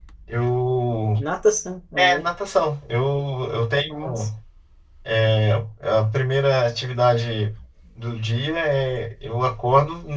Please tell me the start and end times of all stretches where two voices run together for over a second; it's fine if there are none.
none

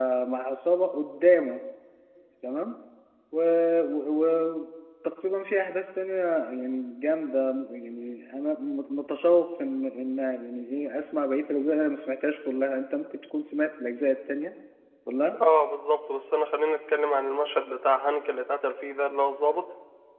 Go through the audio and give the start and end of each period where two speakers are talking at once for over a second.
none

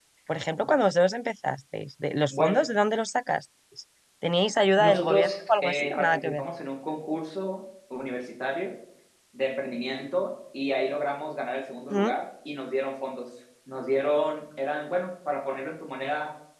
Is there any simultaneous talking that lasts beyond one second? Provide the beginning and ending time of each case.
4.8-6.4

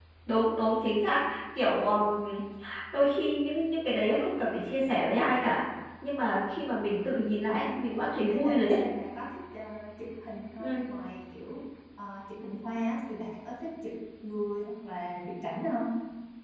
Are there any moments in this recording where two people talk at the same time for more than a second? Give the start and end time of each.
none

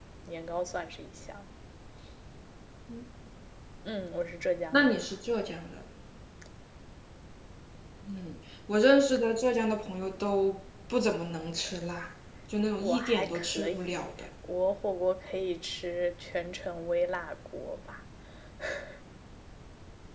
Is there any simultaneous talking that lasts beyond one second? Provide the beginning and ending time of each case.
12.8-14.1

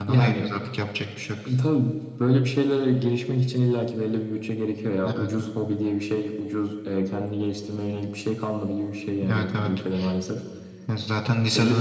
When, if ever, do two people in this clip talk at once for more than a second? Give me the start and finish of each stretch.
none

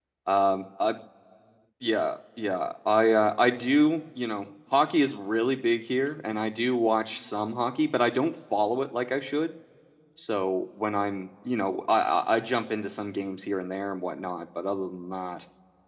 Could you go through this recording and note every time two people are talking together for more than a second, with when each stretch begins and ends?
none

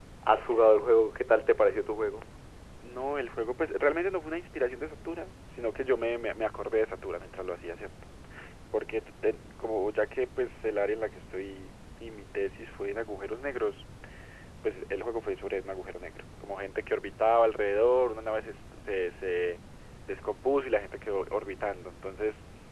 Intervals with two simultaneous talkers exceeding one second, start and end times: none

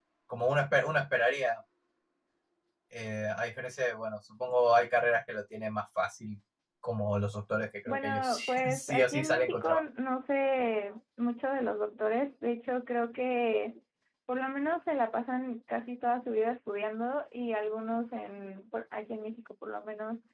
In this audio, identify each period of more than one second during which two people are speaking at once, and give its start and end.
7.9-9.8

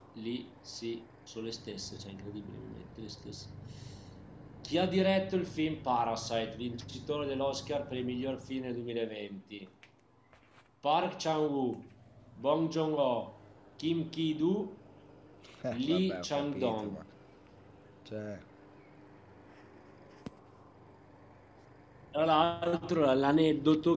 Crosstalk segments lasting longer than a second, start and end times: 15.7-17.0

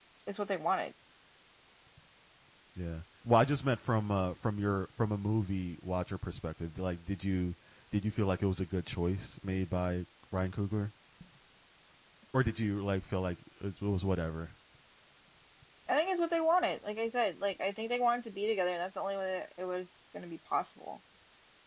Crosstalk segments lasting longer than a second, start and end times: none

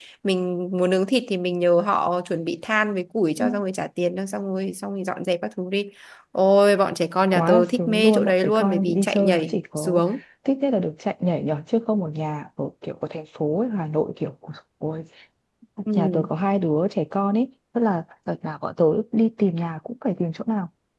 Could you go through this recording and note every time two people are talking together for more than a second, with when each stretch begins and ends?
7.3-10.0

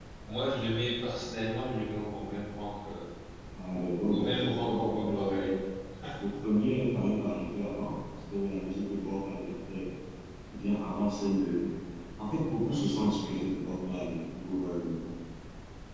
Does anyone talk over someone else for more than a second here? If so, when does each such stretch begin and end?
4.1-5.5

